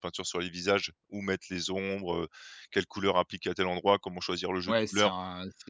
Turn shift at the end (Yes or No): Yes